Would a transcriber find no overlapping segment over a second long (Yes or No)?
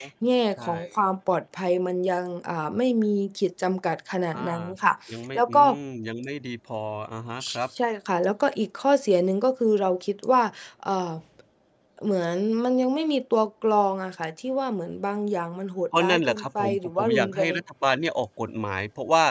No